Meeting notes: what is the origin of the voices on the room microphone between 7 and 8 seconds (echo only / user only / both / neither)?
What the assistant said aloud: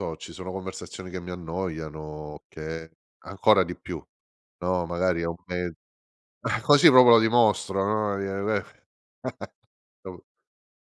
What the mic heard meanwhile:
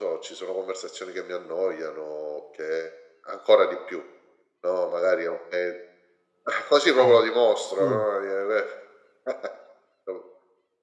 both